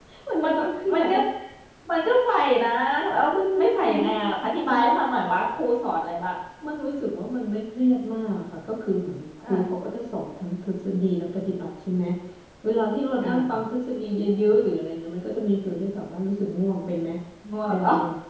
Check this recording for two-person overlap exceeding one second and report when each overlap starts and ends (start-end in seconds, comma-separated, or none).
3.6-4.9